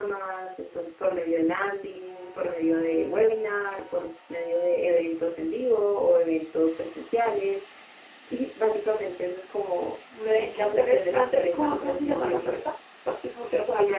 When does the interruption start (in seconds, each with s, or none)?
10.1 s